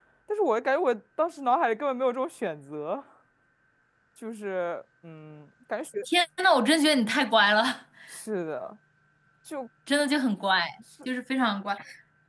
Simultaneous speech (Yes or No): No